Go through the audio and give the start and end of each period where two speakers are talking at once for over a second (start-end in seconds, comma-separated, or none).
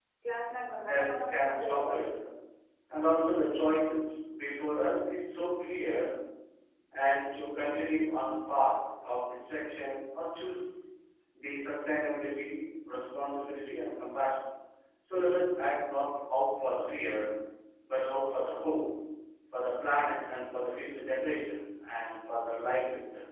0.9-2.2